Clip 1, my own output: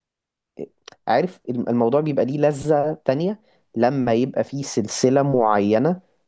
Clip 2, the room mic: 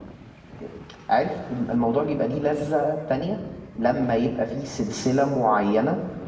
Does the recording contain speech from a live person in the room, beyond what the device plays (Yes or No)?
No